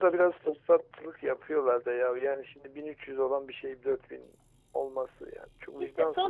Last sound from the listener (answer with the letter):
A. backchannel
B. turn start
B